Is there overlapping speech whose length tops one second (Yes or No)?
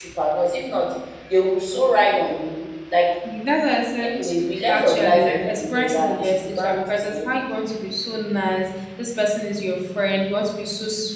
Yes